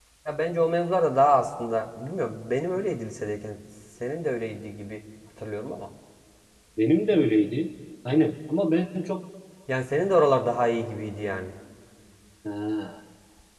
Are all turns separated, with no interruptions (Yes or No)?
Yes